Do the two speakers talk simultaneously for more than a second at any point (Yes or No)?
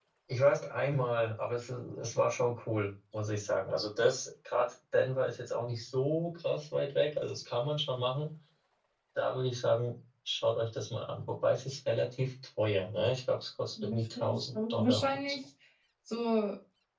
Yes